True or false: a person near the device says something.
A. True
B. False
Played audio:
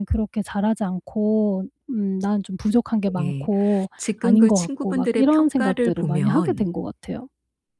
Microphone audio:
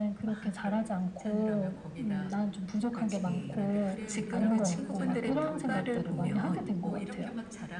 A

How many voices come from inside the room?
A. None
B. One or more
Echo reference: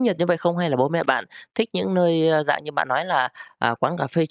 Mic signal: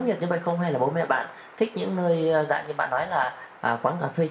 A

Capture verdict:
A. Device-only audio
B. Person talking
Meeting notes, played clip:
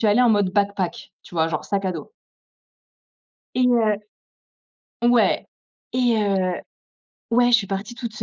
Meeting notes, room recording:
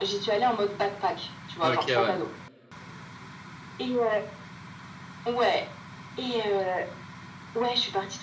B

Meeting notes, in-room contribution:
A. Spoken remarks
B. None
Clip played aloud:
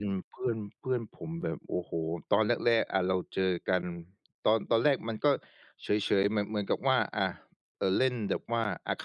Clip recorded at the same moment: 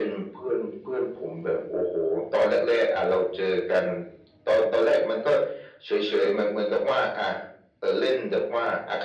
B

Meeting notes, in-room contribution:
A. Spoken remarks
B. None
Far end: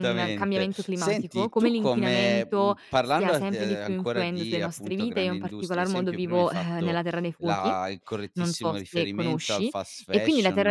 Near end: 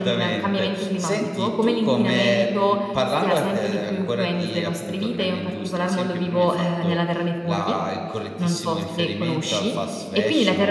B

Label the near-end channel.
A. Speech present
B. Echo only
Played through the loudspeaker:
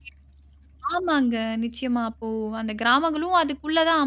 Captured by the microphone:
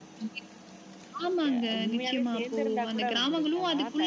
A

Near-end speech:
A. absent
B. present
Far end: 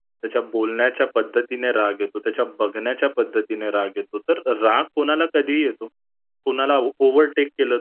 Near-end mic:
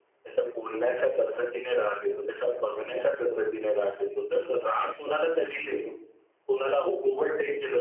A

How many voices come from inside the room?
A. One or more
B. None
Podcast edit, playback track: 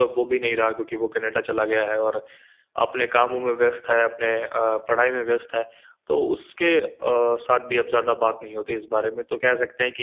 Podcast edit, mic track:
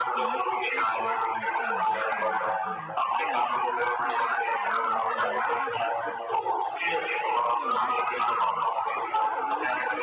A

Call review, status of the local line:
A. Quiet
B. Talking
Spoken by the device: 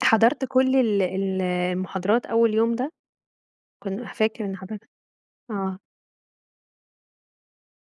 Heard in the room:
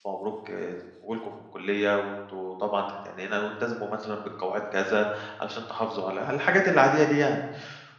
B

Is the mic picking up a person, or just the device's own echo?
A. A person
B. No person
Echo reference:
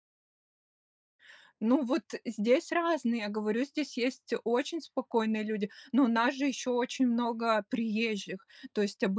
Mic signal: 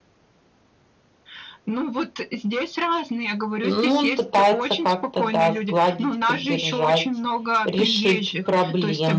A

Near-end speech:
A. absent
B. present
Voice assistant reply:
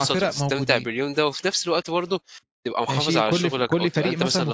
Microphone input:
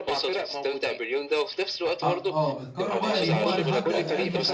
B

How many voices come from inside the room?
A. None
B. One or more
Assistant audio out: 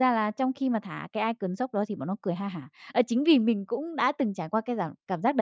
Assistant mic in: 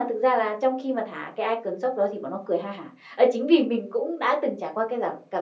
A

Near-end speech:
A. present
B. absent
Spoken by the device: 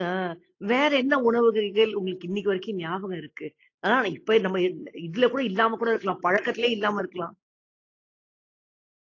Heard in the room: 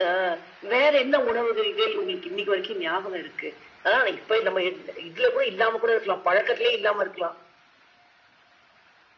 B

